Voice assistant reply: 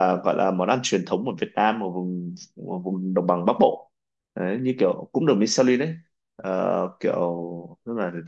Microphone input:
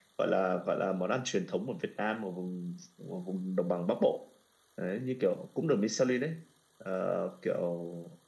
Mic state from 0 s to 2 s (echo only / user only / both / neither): echo only